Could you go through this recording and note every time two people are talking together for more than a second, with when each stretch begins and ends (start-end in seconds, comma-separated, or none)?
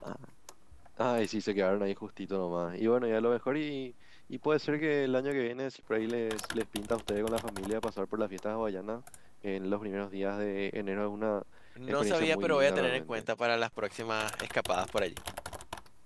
11.9-13.2